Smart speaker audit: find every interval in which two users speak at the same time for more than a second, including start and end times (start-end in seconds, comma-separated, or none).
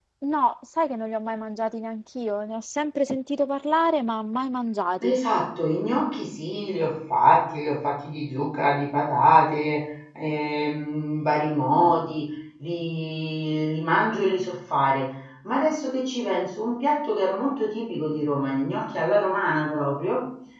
none